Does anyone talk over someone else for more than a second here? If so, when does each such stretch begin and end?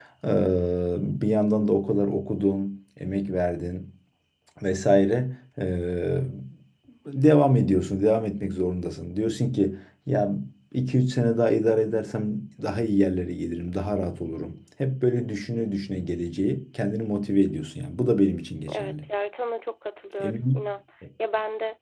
none

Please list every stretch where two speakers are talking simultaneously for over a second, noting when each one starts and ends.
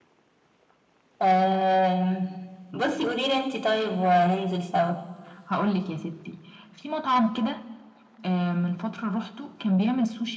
none

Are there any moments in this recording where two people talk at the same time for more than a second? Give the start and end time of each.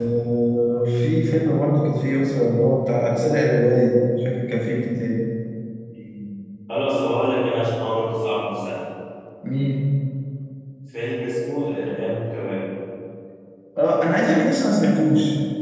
none

